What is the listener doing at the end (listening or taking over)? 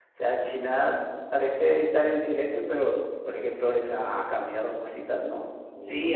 taking over